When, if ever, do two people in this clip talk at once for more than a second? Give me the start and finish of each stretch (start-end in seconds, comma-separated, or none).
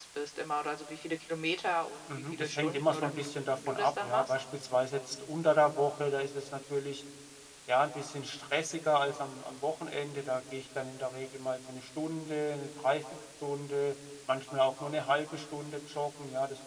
2.3-4.3